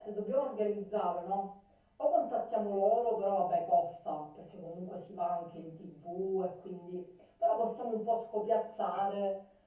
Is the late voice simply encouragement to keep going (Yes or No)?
Yes